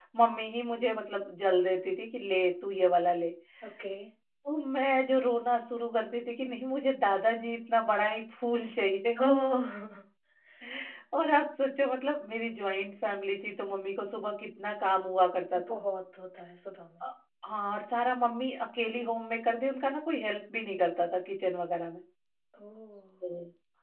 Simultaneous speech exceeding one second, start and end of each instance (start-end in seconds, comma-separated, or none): none